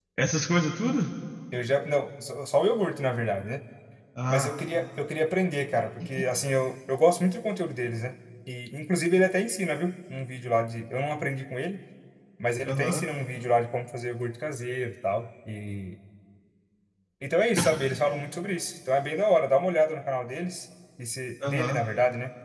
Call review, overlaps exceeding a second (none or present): none